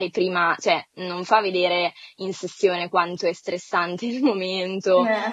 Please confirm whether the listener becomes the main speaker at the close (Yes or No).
No